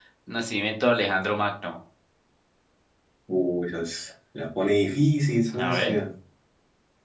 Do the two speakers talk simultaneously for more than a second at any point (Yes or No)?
No